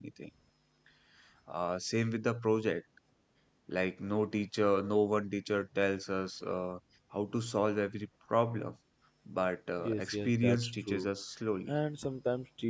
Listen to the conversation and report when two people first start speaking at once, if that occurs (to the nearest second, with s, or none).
10 s